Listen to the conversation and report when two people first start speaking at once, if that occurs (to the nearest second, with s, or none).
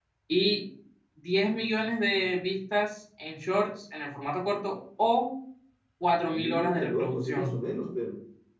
6 s